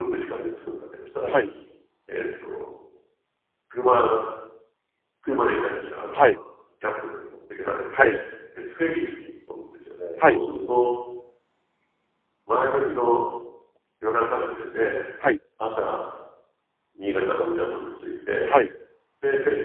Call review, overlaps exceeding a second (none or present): none